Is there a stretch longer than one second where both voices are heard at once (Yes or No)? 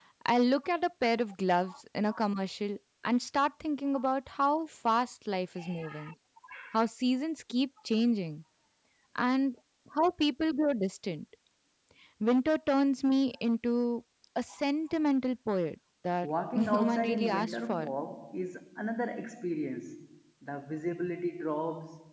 Yes